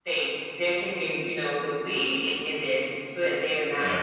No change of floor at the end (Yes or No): Yes